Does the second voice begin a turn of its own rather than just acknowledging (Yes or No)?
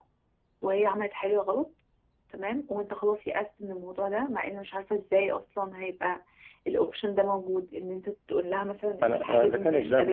Yes